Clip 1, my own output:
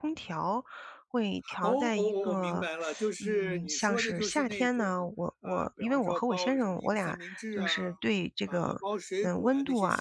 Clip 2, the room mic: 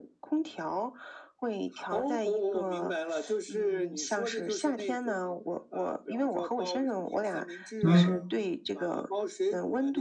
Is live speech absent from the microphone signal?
No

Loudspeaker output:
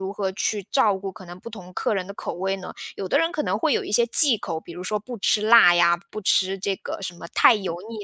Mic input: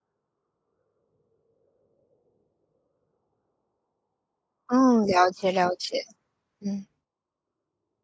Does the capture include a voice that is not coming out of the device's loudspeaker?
Yes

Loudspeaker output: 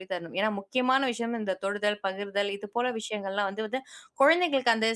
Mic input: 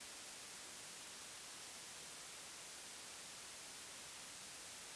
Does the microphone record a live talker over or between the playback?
No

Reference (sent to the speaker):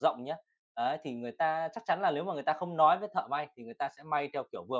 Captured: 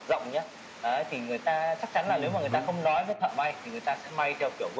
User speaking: Yes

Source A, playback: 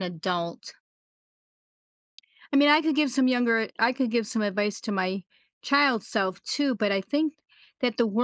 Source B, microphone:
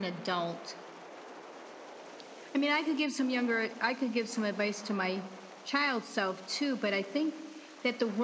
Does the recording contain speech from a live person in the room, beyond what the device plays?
No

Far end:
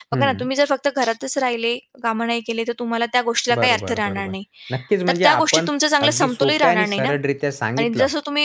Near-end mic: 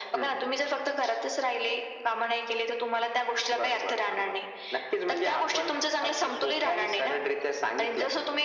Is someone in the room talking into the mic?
No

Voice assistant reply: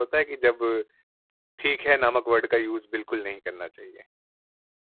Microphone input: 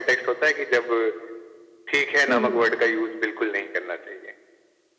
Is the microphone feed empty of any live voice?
No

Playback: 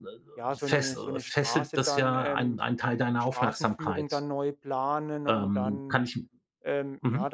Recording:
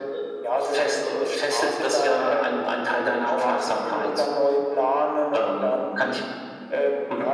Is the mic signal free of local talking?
Yes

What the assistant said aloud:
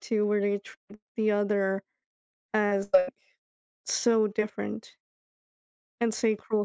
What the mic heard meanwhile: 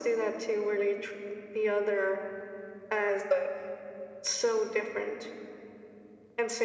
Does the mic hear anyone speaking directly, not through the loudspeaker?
No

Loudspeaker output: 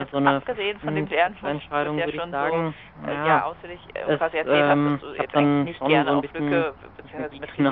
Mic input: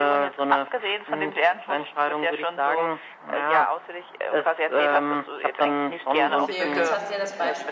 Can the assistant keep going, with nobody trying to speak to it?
No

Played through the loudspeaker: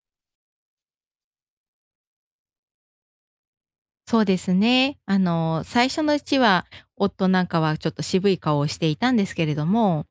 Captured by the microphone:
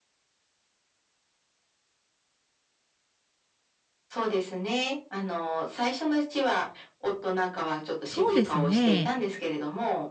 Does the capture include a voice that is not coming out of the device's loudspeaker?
Yes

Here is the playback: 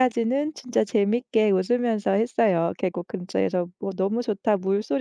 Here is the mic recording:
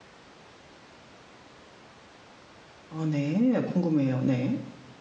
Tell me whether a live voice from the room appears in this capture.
Yes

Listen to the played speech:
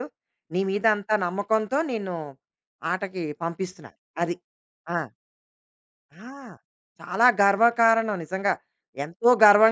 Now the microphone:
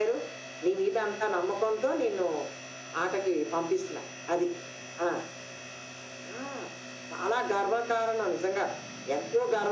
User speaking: No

